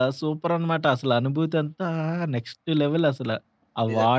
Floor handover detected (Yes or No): Yes